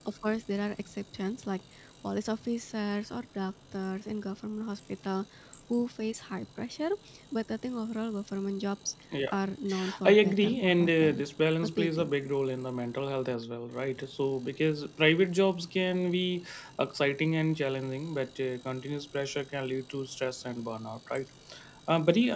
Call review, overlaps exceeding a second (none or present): present